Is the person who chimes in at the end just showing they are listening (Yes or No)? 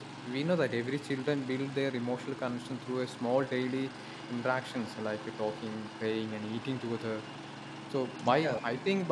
Yes